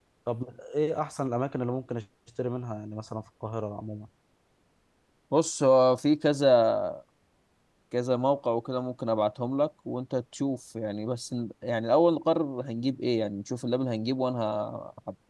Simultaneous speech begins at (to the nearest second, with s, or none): none